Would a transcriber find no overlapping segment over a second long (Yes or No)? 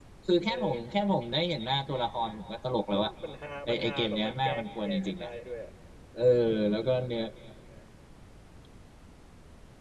No